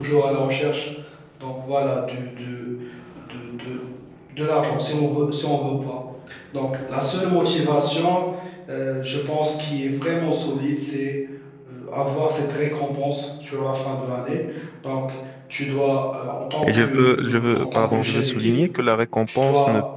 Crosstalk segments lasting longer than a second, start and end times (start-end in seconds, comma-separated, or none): 16.6-18.5